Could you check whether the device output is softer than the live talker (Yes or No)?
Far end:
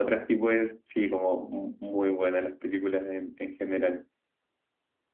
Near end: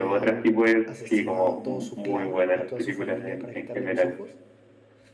No